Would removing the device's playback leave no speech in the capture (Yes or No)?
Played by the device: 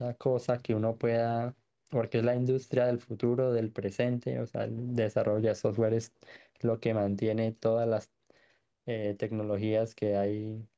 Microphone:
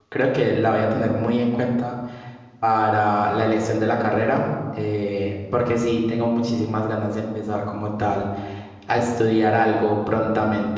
No